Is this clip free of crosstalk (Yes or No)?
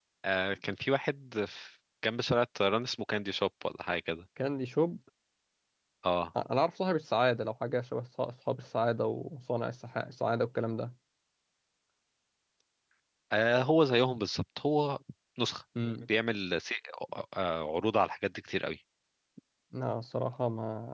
Yes